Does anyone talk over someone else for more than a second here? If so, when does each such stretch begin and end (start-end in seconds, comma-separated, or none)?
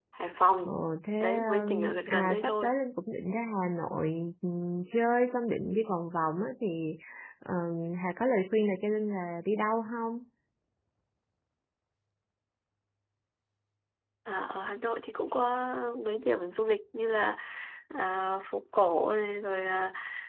1.2-2.7